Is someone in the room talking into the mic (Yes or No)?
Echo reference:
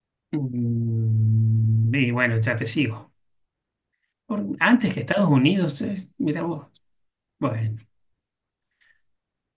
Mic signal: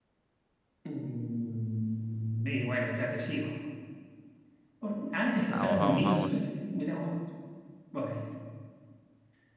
Yes